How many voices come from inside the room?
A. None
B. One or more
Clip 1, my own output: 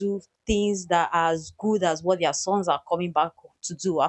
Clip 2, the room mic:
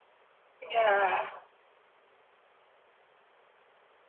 B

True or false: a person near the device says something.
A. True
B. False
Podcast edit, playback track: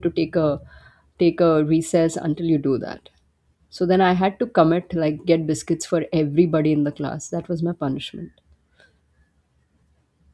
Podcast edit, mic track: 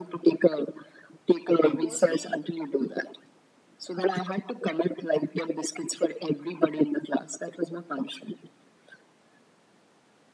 A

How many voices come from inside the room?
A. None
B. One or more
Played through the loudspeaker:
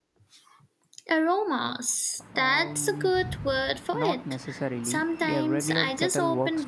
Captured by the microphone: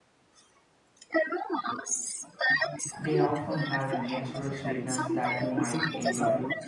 B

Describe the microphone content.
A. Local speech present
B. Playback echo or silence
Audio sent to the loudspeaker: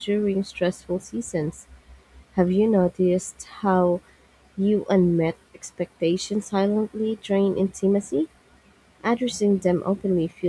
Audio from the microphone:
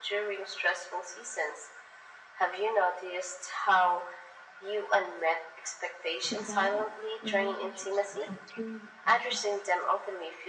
A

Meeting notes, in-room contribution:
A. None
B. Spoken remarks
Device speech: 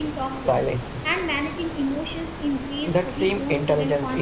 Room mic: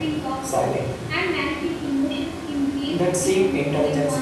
A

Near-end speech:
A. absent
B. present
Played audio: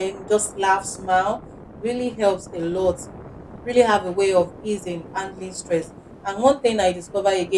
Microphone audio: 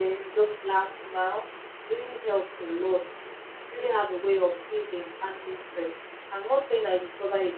A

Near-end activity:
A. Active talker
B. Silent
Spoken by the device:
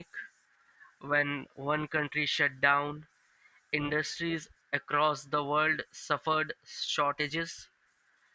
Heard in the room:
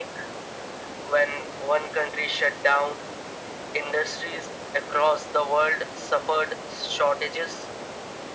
B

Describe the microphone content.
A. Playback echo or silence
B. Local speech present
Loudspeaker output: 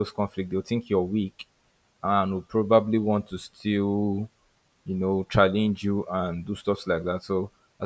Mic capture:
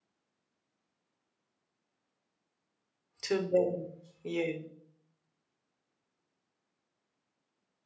B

